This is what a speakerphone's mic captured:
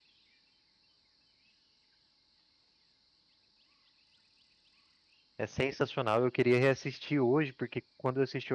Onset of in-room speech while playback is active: 5.4 s

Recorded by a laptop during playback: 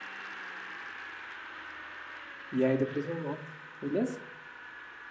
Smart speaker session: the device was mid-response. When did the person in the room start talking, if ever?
2.5 s

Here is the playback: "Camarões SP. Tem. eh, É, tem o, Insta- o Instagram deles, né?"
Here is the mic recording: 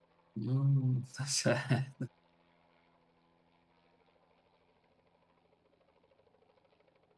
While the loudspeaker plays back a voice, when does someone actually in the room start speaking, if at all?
0.4 s

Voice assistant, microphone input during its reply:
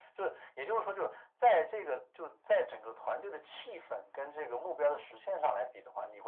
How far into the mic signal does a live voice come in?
none

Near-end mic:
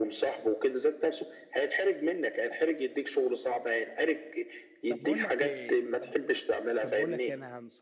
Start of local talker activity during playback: 4.9 s

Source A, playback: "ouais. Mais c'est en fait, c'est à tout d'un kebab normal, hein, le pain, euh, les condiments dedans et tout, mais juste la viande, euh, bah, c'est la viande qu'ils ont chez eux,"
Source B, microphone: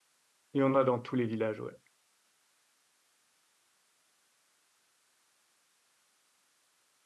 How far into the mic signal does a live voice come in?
0.5 s

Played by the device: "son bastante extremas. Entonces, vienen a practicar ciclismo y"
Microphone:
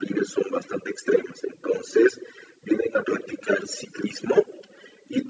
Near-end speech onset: none

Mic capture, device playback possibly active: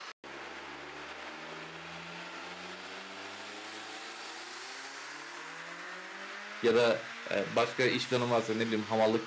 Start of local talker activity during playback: 6.6 s

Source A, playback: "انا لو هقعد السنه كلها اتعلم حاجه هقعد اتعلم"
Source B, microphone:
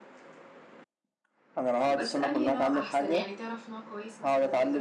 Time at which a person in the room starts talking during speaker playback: 1.8 s

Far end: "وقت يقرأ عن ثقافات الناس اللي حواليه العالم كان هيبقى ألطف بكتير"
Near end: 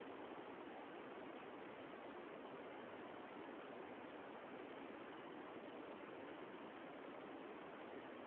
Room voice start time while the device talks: none

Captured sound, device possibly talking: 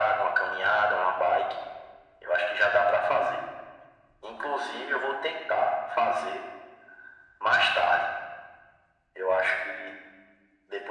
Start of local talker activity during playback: none

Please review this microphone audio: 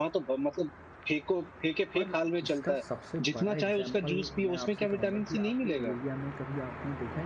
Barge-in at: 2.0 s

